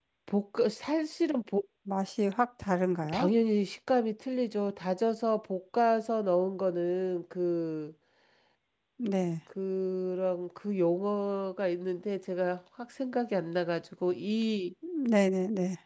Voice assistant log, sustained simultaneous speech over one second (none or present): none